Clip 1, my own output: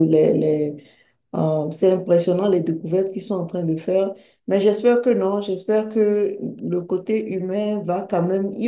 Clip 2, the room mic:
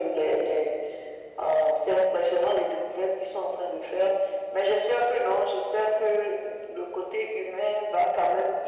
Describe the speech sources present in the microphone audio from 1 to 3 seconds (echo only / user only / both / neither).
echo only